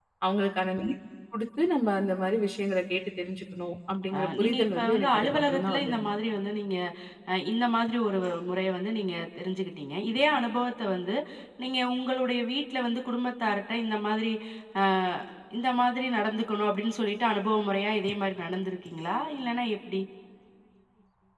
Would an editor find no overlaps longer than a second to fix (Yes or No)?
No